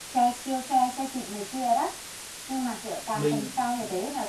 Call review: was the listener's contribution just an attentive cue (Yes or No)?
Yes